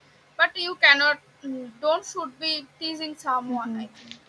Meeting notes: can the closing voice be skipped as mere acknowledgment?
No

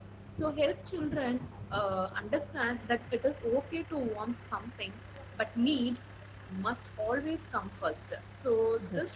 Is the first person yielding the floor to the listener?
No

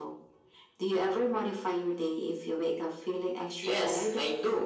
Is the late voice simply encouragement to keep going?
No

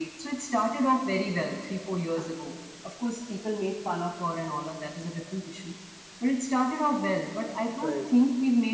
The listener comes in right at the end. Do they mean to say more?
No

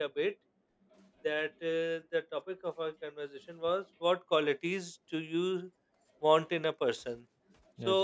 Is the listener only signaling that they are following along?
Yes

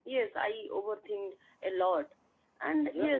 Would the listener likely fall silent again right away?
Yes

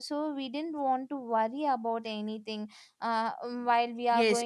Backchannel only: No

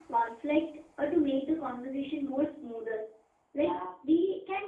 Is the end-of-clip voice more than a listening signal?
No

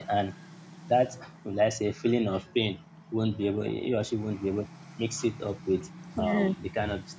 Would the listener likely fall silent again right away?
Yes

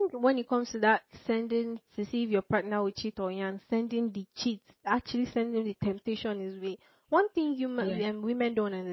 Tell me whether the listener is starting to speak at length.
No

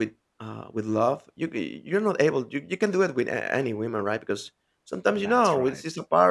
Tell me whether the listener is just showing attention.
Yes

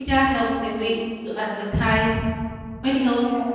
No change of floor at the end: Yes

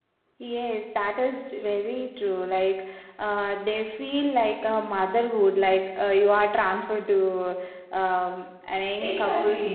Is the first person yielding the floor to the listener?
Yes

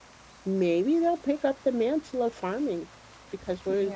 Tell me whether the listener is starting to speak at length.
No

